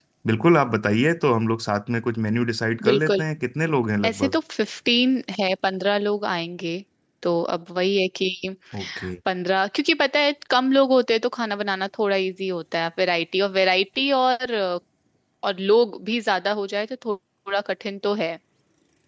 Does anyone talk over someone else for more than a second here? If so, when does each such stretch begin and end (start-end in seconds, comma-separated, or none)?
none